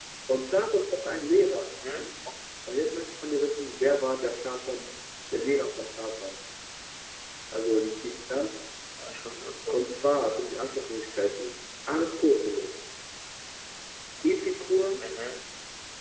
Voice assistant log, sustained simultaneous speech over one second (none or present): none